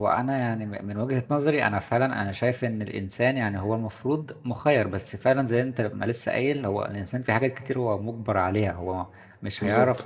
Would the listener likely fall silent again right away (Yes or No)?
Yes